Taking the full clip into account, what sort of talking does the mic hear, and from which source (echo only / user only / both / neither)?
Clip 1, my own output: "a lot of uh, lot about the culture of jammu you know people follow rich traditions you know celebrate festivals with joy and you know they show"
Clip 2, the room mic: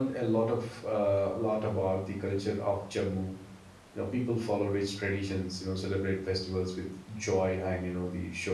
echo only